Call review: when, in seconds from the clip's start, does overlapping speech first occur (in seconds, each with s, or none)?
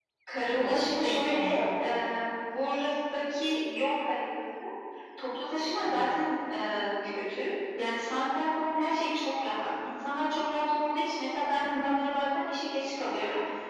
0.5 s